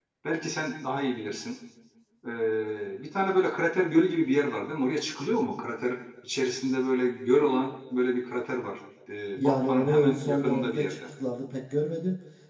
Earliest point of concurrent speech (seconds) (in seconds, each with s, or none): 9.4 s